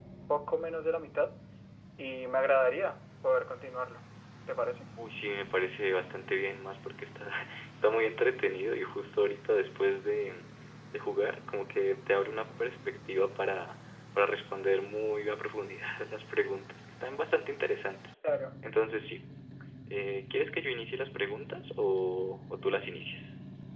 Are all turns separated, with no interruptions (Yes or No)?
Yes